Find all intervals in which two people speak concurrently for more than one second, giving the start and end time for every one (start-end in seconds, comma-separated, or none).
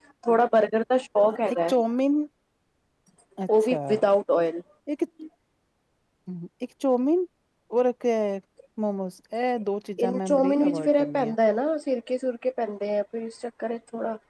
10.0-11.3